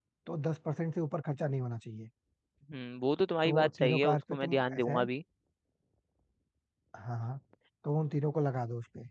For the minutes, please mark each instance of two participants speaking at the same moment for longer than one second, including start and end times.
3.4-5.1

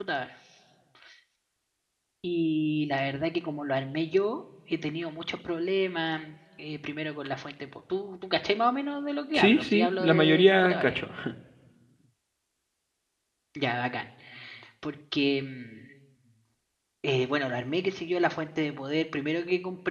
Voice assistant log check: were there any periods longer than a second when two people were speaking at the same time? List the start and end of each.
9.3-11.0

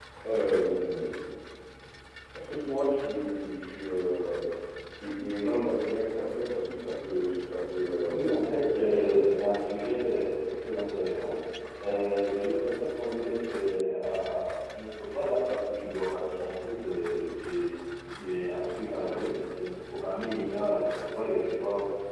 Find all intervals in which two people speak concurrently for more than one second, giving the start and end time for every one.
8.1-9.4

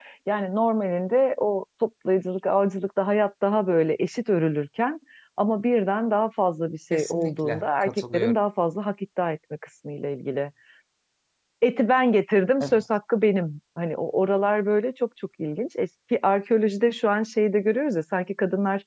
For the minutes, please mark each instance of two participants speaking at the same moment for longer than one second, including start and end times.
6.9-8.4

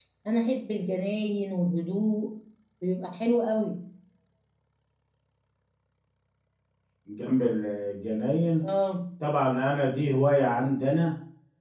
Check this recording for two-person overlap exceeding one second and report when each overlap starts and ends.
none

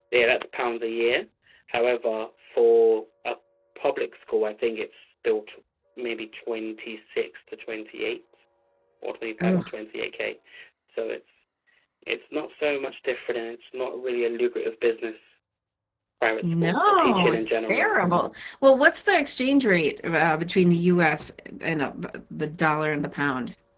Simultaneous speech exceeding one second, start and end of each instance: 16.4-17.9

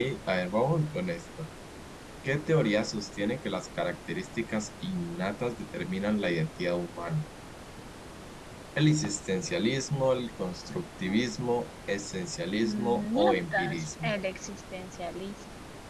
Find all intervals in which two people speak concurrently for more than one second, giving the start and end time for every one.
12.5-14.1

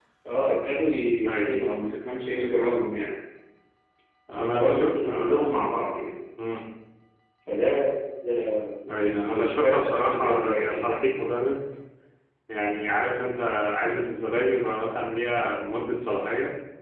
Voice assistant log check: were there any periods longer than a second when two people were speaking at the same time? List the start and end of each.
4.3-5.6, 9.0-10.8

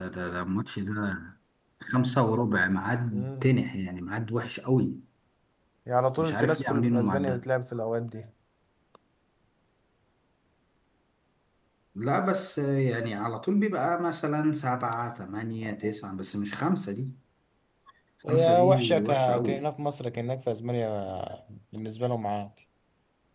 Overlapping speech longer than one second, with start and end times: 6.2-7.4, 18.3-19.7

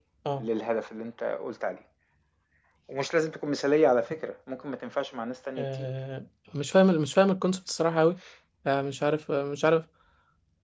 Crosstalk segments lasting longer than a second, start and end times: none

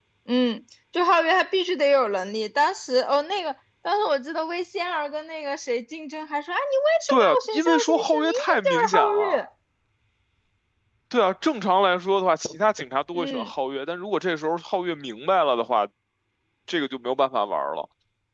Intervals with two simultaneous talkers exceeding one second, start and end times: 7.1-9.4

